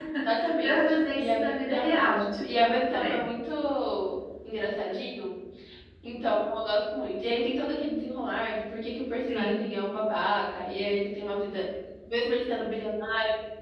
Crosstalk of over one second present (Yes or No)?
Yes